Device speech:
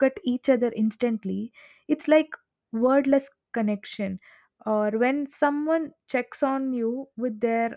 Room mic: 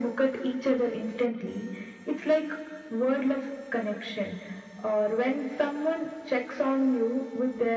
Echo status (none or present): present